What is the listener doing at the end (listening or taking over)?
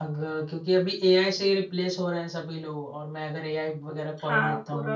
taking over